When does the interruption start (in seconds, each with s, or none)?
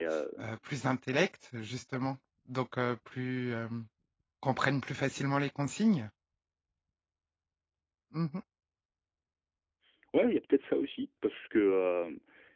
none